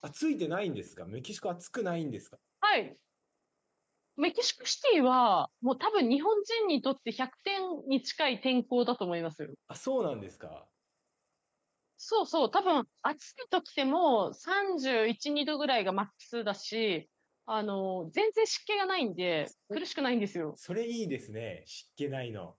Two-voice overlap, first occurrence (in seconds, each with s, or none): none